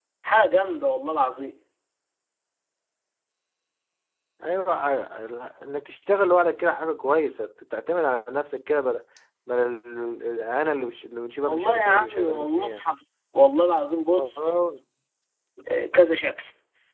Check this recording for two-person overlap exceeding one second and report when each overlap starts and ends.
11.4-12.8

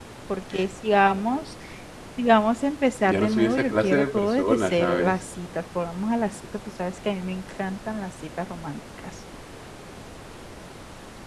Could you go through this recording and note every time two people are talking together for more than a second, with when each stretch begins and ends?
3.0-5.1

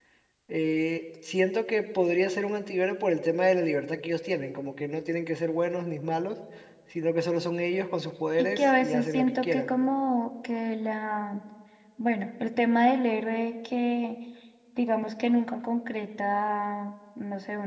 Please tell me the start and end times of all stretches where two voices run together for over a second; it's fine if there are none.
8.4-9.7

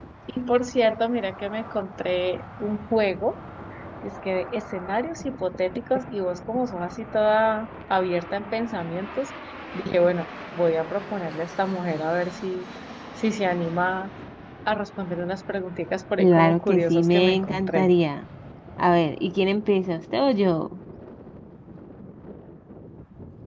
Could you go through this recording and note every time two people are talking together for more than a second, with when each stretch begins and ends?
16.2-17.9

